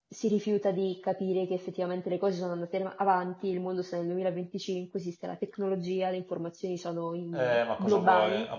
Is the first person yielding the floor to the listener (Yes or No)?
Yes